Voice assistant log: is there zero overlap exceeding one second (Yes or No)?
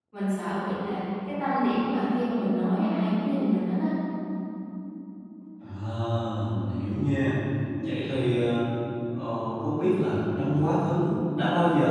Yes